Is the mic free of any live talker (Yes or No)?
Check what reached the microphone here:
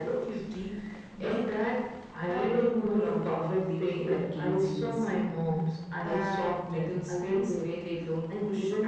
Yes